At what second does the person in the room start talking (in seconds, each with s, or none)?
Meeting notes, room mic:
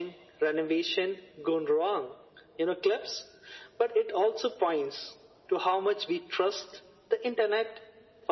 none